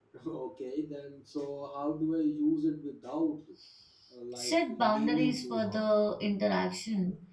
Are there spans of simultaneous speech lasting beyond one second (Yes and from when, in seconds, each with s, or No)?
Yes, from 4.4 s